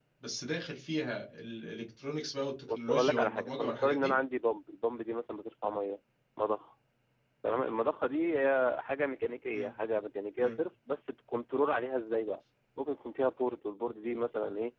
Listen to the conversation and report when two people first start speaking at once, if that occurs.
2.7 s

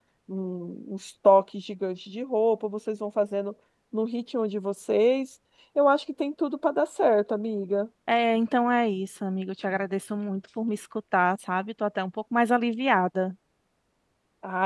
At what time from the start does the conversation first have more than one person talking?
none

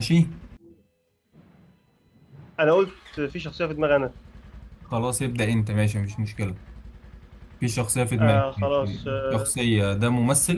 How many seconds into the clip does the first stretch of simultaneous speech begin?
8.2 s

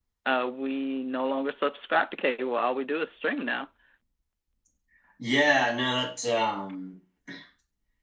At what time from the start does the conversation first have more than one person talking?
none

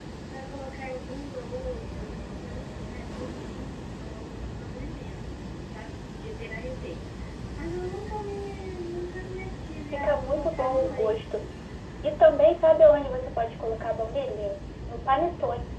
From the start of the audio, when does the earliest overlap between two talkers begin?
9.9 s

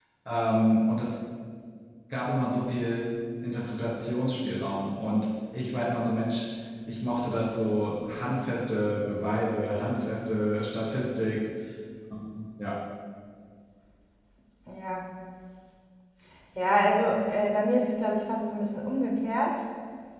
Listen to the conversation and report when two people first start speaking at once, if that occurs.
none

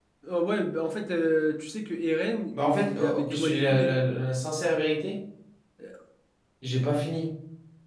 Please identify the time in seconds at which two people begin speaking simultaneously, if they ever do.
2.5 s

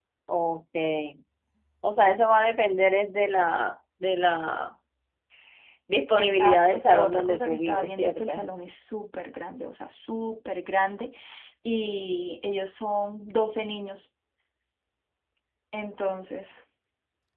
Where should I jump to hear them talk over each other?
6.2 s

